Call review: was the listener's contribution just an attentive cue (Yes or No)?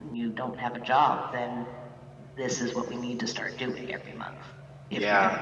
No